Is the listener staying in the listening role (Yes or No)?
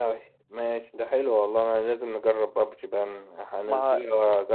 Yes